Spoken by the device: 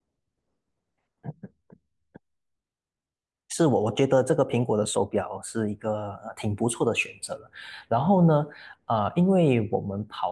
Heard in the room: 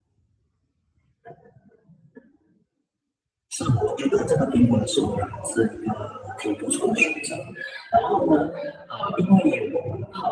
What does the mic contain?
echo only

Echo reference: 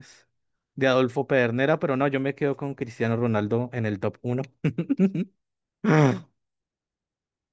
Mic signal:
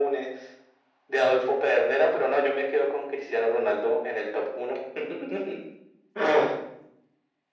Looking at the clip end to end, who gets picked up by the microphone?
echo only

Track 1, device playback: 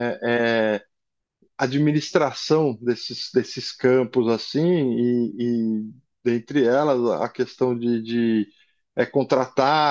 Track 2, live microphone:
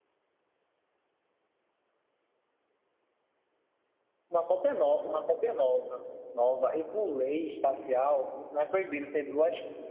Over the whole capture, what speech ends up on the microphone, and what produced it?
user only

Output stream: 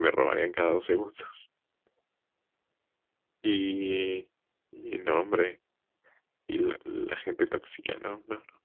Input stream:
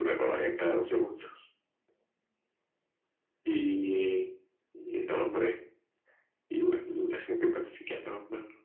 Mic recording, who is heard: echo only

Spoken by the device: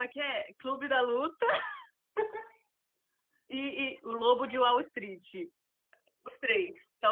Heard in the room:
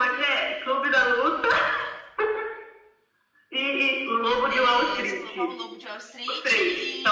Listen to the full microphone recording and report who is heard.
both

